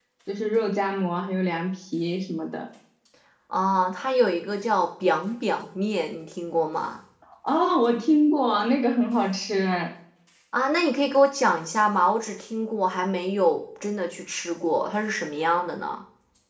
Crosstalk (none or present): none